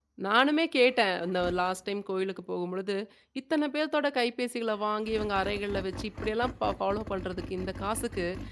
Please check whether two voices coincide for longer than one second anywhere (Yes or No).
No